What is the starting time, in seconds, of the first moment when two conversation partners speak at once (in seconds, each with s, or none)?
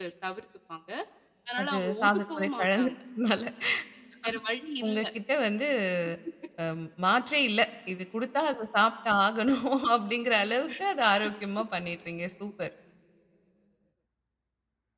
1.6 s